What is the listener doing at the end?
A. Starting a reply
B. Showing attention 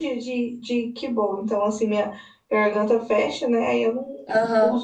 A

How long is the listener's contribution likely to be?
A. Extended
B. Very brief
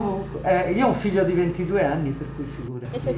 A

